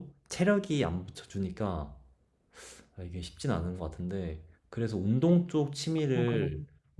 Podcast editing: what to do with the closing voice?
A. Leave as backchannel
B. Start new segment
A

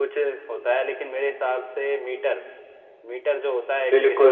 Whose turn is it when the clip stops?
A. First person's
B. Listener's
B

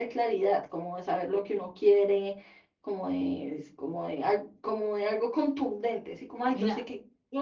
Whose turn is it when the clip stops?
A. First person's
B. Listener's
A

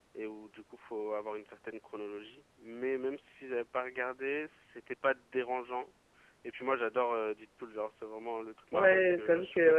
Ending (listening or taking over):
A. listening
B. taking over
B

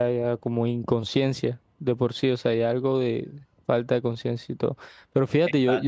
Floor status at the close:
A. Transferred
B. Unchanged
B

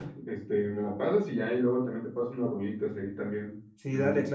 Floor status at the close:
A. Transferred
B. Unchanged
A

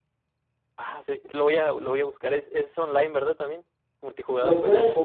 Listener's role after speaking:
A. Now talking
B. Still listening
A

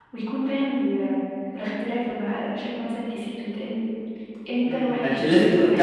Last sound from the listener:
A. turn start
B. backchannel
A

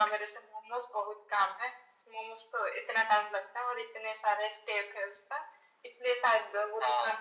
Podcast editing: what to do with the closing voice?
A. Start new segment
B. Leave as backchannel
B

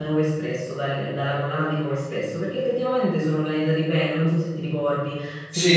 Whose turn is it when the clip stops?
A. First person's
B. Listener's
B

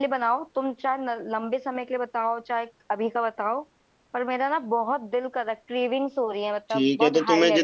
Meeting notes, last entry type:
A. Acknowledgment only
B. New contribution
B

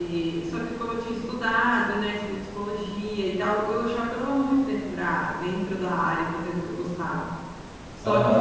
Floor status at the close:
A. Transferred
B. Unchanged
A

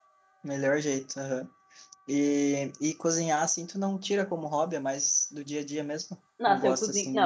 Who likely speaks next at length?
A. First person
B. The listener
B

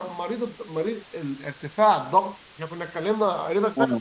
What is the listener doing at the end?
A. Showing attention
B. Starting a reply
B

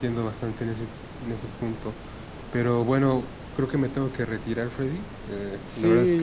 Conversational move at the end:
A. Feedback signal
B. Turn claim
B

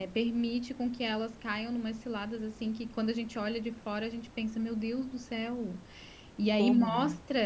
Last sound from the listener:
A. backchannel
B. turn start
A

